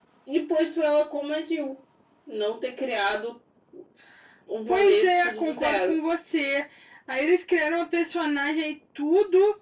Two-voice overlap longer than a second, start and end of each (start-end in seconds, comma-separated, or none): 4.7-6.0